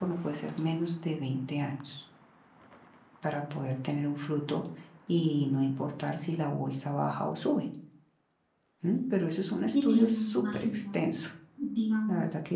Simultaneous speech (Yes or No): Yes